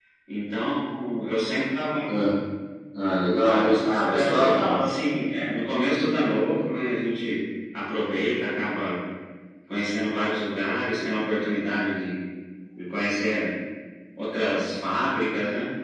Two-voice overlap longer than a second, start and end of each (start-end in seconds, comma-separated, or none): 3.4-4.8